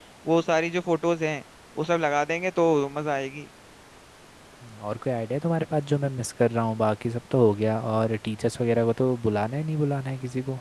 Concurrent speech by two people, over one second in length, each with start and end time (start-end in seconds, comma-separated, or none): none